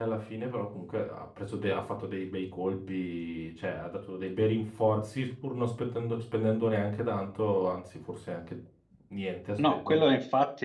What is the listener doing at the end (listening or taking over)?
taking over